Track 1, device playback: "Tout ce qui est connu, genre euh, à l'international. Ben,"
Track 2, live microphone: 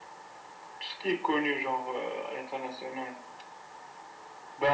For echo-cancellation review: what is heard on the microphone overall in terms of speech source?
echo only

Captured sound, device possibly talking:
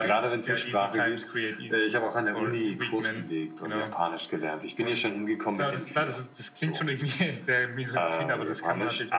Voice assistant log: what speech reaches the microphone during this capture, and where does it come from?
echo only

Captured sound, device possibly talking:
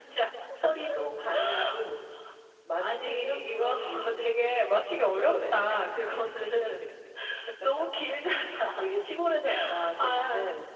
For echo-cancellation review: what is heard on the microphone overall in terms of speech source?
echo only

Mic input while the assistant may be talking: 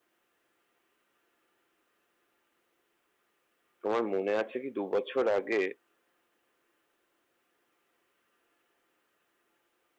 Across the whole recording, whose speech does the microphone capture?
user only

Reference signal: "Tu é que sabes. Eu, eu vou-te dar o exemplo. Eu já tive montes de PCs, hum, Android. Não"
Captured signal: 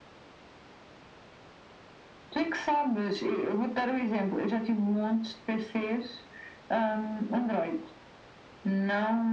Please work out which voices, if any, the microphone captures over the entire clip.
echo only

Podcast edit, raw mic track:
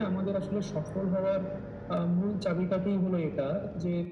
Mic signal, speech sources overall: echo only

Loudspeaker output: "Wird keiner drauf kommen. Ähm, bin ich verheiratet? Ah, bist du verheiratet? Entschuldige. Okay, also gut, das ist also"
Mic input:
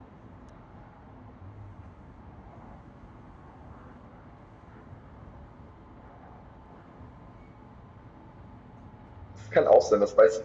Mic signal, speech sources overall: user only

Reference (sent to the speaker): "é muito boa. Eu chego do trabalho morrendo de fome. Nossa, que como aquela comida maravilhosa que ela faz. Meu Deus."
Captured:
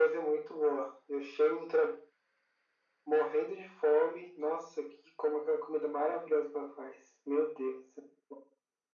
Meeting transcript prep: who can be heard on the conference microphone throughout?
echo only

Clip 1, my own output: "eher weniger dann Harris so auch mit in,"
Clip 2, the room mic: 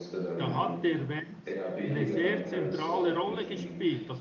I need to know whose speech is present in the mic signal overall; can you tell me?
both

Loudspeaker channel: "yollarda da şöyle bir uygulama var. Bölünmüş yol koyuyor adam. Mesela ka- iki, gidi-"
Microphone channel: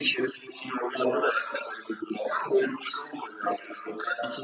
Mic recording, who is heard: echo only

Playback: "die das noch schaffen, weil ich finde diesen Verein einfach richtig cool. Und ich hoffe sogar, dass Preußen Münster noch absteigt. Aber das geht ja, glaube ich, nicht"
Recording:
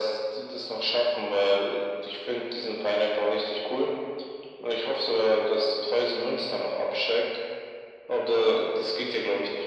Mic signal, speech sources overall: echo only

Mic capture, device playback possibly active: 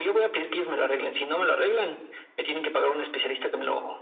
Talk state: echo only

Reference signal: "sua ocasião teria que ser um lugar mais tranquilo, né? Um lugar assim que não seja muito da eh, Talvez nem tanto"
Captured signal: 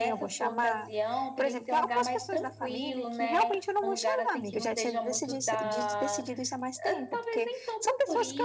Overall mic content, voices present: both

